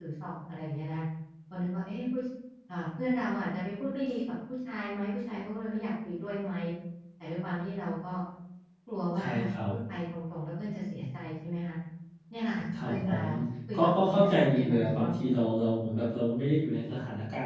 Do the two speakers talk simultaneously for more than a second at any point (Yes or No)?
Yes